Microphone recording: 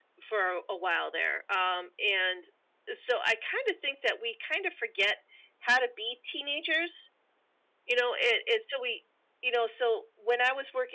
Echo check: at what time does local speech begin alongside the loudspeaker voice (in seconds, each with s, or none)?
none